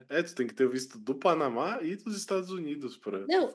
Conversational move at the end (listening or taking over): taking over